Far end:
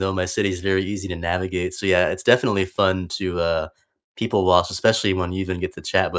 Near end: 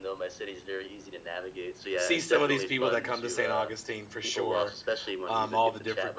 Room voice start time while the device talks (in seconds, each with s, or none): 2.0 s